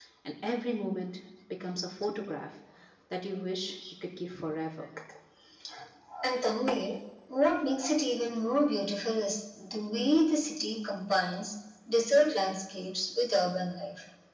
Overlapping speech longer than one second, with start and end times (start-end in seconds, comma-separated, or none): none